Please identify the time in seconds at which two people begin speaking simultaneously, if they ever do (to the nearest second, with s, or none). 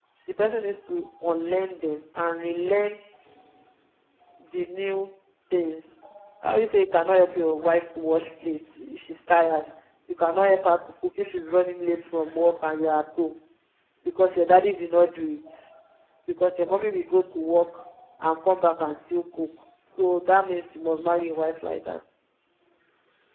none